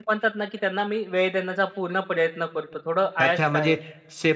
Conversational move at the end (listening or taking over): taking over